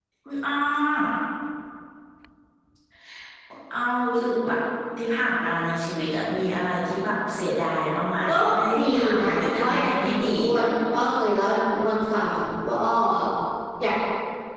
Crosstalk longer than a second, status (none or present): present